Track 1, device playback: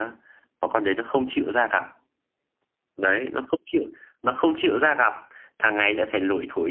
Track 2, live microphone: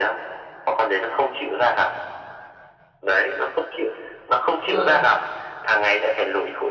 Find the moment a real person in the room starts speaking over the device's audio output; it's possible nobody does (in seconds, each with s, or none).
4.6 s